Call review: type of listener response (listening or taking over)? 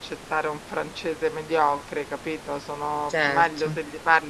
listening